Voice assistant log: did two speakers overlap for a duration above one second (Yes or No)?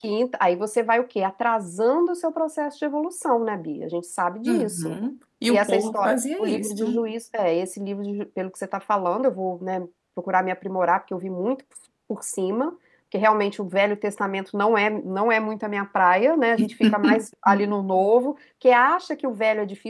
Yes